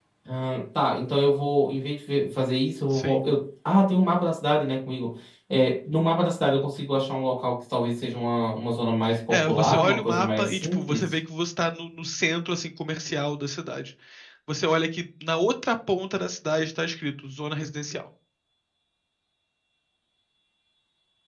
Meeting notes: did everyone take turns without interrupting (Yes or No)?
No